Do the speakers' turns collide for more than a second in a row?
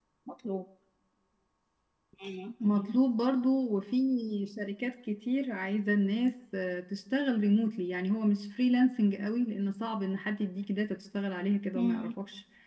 No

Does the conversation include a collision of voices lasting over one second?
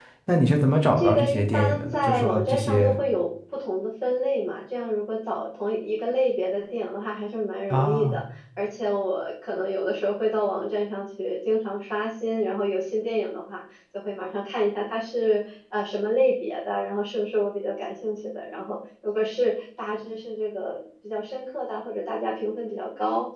Yes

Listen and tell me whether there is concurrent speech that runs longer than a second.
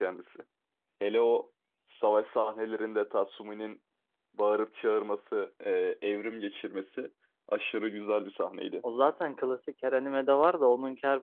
No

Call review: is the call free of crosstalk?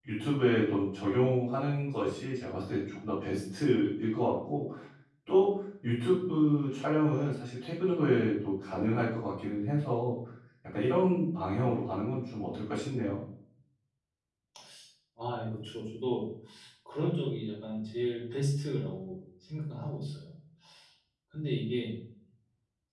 Yes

